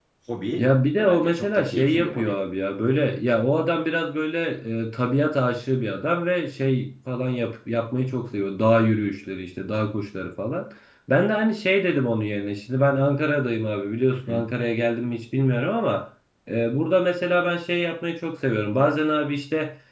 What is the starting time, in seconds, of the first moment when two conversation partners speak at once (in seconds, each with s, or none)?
1.0 s